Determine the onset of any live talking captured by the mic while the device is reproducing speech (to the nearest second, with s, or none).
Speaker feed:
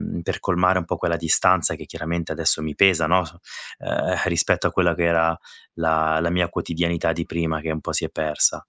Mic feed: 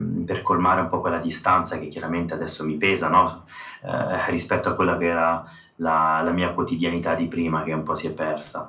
none